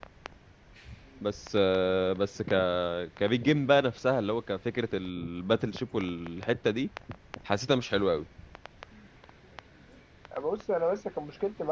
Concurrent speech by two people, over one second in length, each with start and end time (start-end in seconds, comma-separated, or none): none